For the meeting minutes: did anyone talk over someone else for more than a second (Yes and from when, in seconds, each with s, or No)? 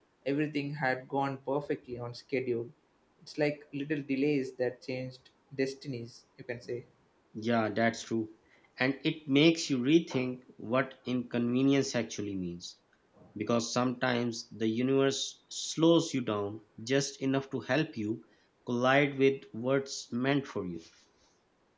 No